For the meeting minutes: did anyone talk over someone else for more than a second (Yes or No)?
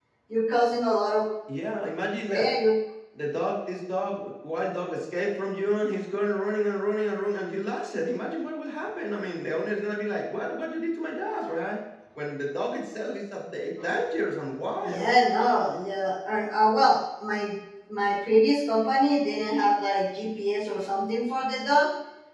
No